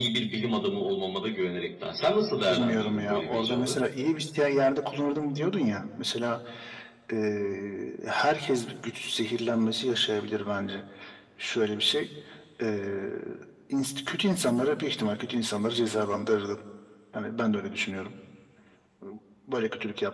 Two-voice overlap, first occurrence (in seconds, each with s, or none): 2.3 s